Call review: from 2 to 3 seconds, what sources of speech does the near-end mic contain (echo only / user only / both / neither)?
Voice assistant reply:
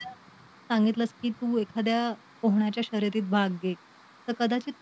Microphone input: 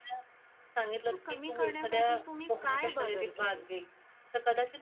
both